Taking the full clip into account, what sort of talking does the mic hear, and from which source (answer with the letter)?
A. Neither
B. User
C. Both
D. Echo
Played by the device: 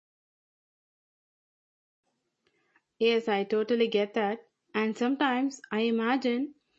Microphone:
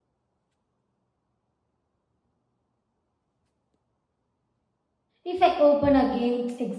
B